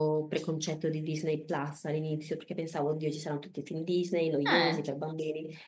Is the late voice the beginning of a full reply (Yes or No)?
No